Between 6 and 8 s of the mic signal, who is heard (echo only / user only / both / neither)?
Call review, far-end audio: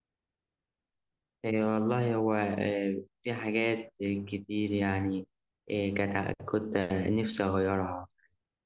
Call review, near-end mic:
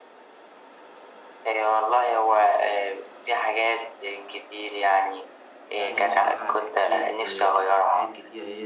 both